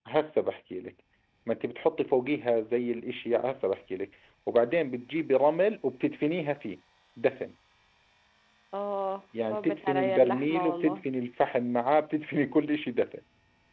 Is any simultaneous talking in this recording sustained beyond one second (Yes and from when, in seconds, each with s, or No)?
Yes, from 9.5 s